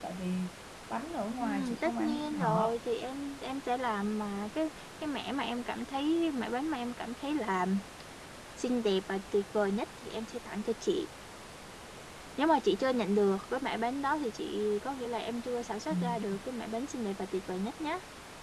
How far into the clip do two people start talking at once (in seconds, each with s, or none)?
1.4 s